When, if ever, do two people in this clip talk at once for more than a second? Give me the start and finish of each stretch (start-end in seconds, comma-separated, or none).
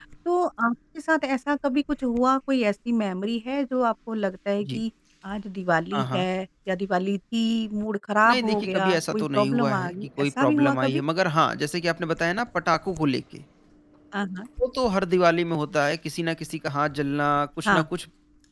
8.3-11.0